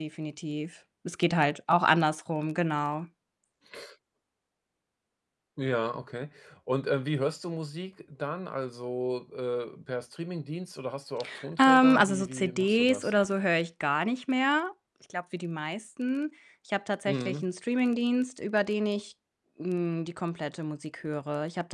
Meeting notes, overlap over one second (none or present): present